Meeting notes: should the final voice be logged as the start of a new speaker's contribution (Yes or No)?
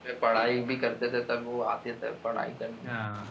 Yes